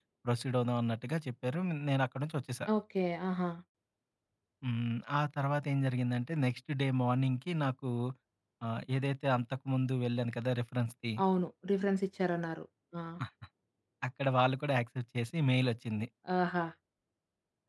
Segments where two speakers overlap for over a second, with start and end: none

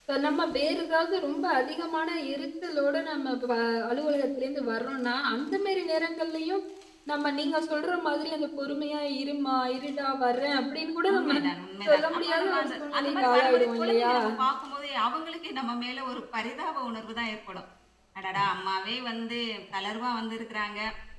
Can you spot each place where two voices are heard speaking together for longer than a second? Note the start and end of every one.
11.9-14.1

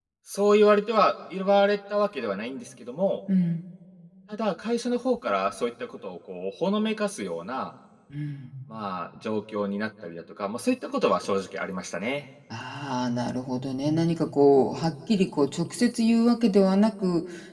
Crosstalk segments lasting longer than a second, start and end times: none

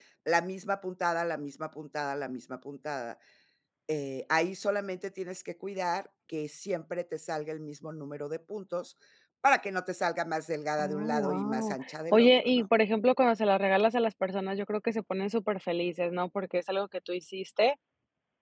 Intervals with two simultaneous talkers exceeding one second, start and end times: 10.8-12.7

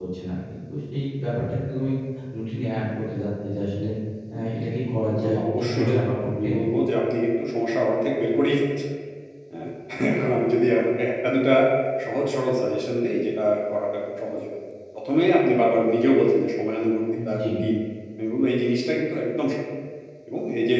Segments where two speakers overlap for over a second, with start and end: 5.2-6.5

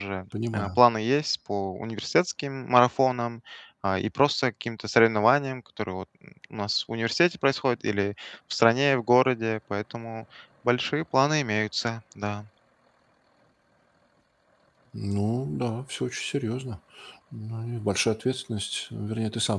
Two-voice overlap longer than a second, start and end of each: none

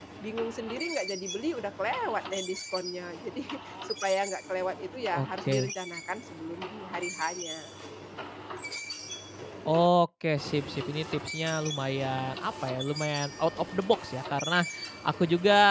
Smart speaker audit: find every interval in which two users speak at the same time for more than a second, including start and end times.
none

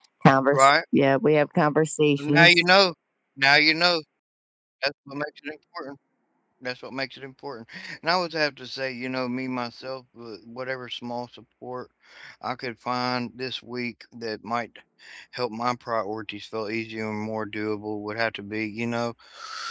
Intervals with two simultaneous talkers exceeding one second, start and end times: none

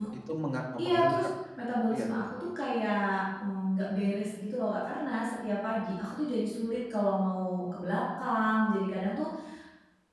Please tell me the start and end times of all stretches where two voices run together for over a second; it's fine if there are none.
none

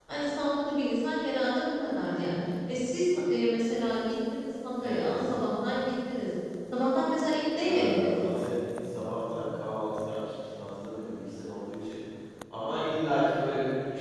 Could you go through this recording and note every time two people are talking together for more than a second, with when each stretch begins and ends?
none

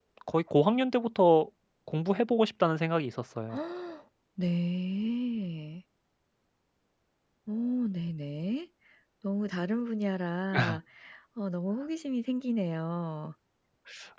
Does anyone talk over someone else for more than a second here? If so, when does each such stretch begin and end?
none

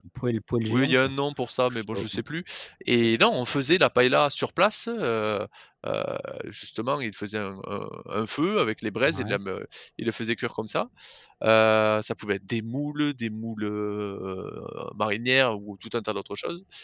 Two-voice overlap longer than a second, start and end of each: none

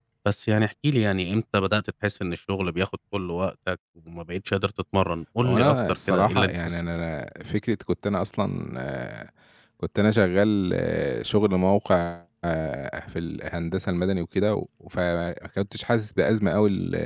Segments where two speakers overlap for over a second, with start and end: 5.4-6.8

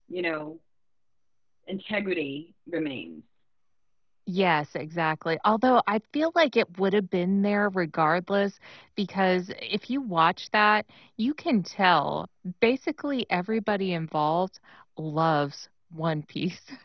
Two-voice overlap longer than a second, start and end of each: none

